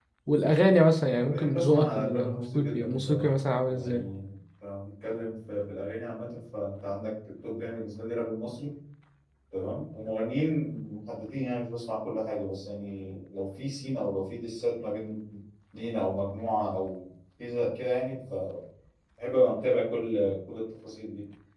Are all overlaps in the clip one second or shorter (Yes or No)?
No